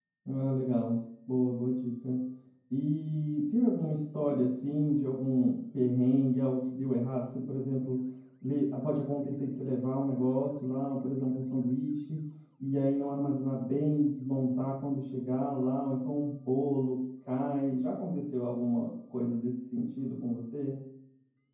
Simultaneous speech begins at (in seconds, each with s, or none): none